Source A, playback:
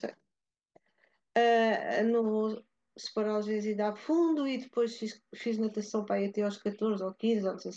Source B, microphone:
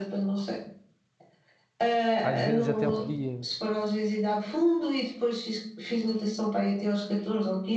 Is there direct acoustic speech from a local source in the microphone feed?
Yes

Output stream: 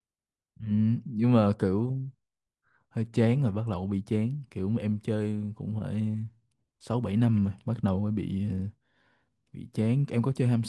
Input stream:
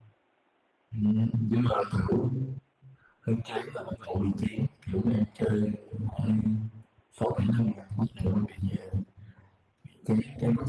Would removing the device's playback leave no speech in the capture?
Yes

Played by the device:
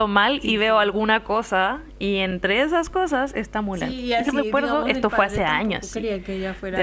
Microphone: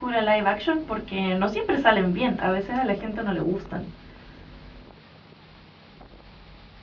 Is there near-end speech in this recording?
Yes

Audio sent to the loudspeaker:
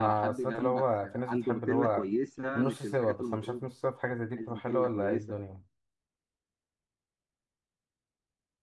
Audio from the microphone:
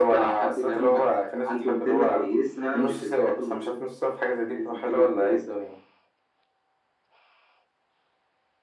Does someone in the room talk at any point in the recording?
No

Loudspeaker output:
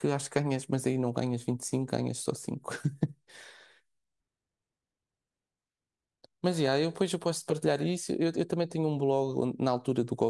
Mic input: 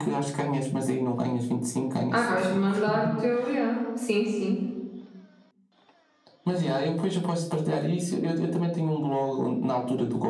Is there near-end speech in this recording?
Yes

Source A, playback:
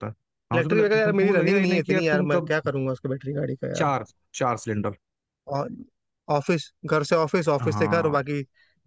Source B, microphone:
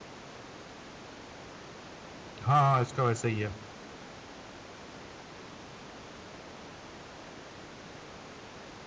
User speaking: Yes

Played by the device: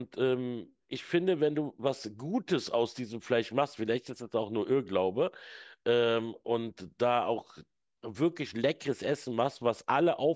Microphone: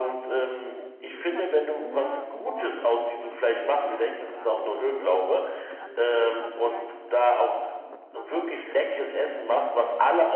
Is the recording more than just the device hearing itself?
Yes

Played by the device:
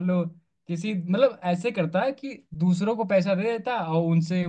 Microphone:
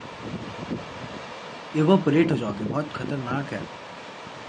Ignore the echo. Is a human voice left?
Yes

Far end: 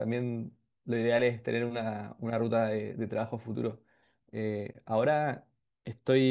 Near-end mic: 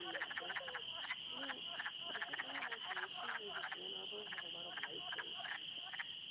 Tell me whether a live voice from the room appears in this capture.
No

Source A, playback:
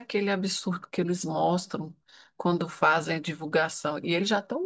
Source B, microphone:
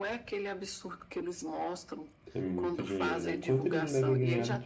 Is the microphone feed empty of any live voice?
No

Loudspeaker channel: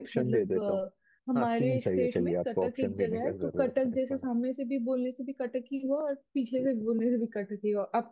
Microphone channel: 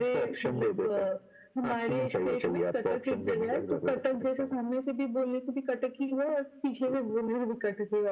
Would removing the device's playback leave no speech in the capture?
Yes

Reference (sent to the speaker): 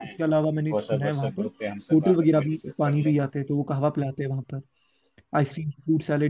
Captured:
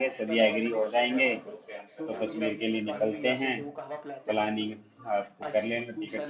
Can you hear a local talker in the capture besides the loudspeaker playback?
Yes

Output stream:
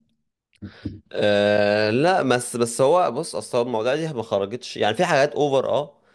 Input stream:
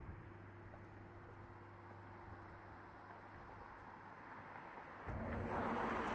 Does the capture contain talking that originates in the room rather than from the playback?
No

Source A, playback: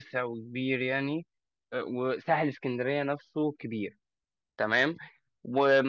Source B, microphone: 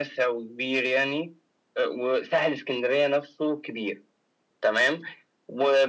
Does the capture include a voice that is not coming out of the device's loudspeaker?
No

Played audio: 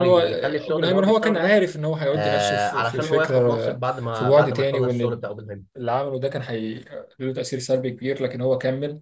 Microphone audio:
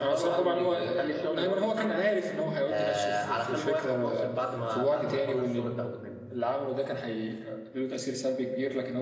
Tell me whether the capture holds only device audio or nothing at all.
Yes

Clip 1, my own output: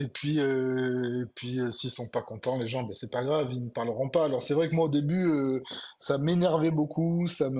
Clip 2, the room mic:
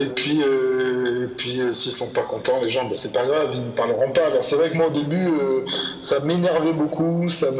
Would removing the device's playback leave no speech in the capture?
Yes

